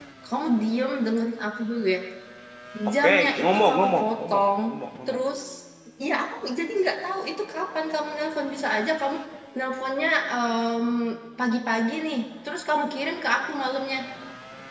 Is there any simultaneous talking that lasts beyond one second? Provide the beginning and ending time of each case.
3.0-4.4

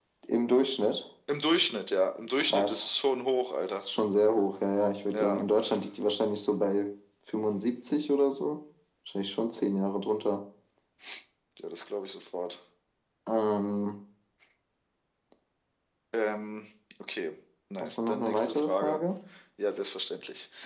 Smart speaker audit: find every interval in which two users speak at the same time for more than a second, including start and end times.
17.8-19.0

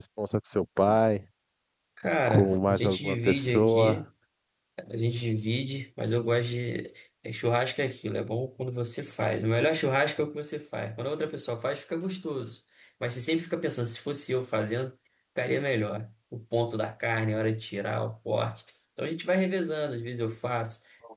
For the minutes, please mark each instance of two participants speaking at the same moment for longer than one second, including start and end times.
2.3-4.0

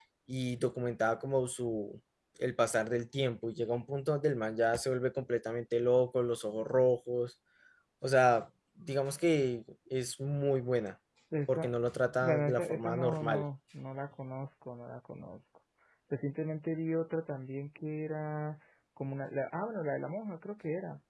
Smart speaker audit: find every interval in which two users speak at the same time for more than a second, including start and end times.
12.2-13.4

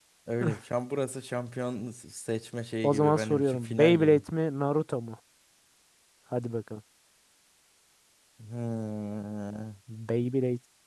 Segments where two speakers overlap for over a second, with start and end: 2.8-4.2

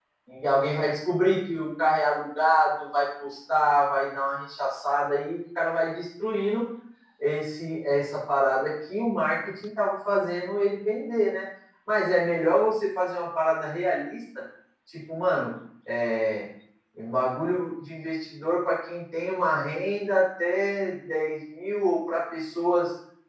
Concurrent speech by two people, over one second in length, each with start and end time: none

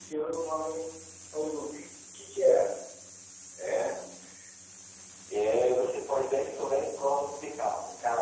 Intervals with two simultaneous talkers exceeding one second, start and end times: none

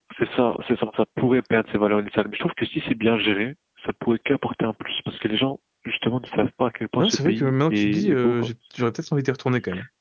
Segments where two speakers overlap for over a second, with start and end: 7.0-8.5

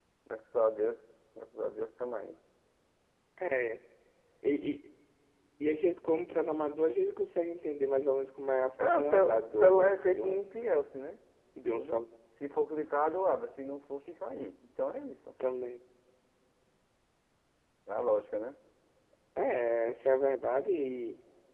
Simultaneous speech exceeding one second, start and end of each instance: 8.8-10.5

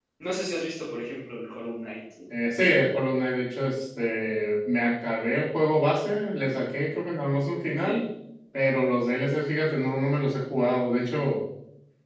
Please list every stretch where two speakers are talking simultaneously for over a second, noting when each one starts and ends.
none

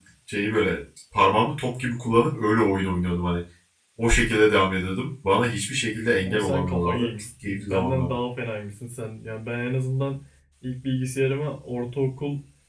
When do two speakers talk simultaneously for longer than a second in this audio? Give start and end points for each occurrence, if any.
6.2-8.2

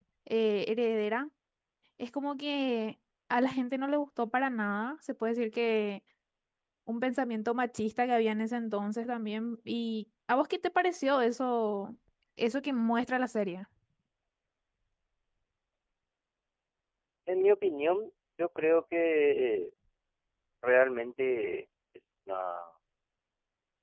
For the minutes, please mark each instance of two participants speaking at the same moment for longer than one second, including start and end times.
none

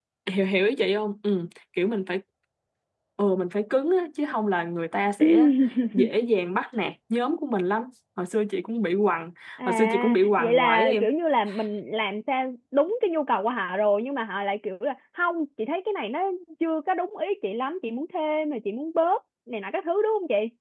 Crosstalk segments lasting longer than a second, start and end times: 9.7-11.0

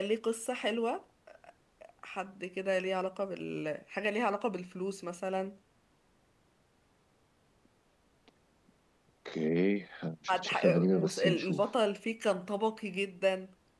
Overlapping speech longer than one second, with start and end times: 10.3-11.7

